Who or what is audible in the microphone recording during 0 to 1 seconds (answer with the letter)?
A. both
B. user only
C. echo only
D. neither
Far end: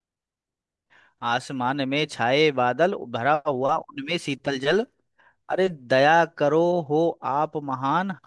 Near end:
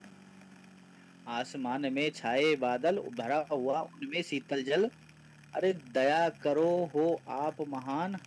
D